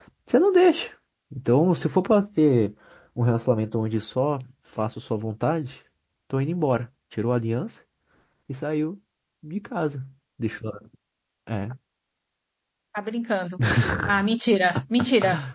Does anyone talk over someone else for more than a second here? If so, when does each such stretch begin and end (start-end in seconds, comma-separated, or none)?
none